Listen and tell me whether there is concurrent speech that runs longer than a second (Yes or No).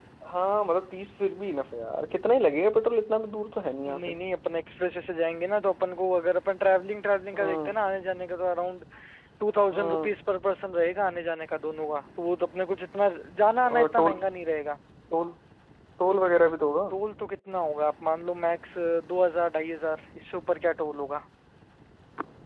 No